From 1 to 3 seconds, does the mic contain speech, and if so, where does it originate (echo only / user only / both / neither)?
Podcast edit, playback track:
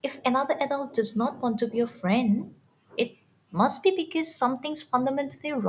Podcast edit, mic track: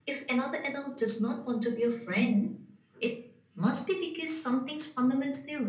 echo only